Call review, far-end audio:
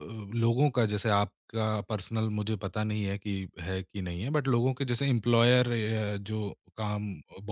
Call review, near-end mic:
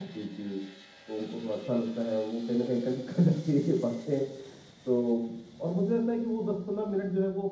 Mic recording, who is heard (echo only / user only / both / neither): user only